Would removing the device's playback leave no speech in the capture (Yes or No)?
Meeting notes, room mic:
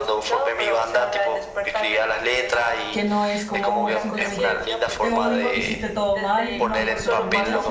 No